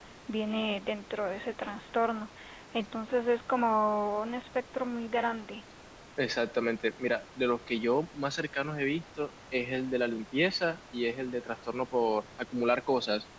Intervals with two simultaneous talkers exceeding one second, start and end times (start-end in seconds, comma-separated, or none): none